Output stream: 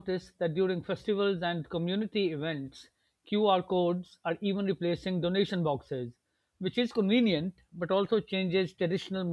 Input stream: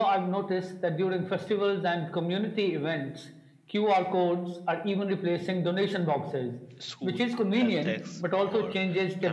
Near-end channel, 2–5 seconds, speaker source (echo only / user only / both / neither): echo only